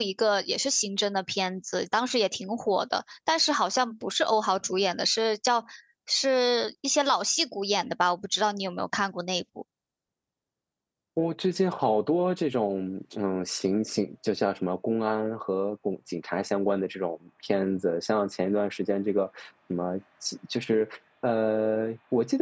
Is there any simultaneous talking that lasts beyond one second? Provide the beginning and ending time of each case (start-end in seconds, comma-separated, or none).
none